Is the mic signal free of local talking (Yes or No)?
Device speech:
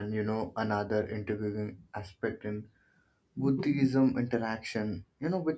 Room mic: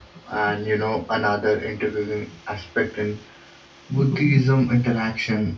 Yes